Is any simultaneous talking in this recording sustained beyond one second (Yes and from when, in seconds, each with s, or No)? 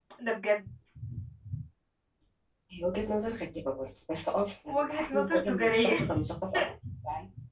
Yes, from 4.7 s